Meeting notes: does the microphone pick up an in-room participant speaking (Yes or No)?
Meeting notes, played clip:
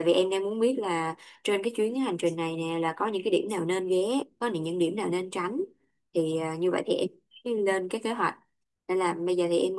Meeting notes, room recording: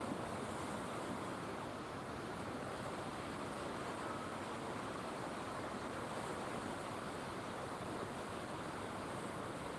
No